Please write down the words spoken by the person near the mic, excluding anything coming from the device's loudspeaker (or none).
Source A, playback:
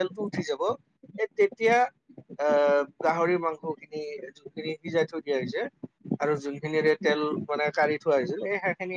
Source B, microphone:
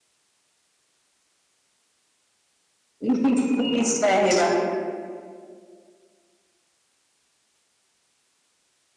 উমহুম! নিশ্চয় আহিবা।